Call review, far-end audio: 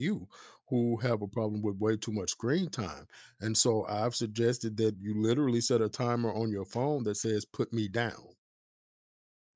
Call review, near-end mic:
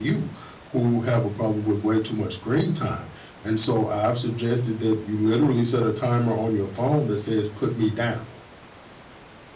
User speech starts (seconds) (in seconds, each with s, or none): none